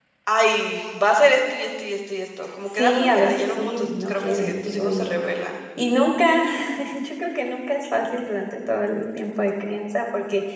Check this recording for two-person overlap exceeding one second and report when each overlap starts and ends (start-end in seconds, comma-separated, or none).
2.8-5.1